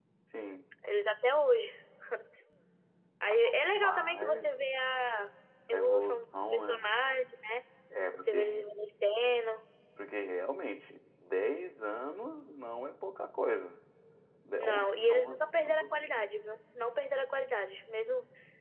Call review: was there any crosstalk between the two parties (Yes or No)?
Yes